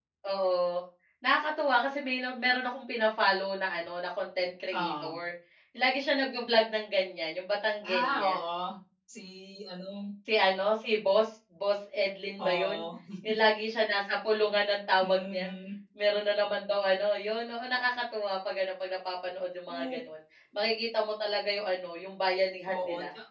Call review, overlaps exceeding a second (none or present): none